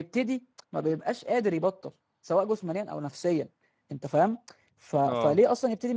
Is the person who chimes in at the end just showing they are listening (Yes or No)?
Yes